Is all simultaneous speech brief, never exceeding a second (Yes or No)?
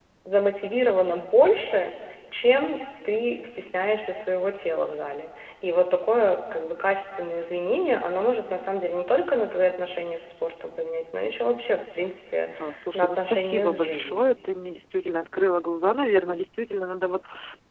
No